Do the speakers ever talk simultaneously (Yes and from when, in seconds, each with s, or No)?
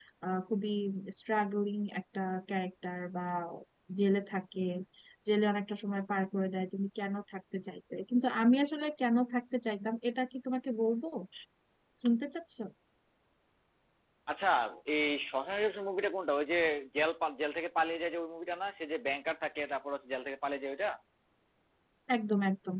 No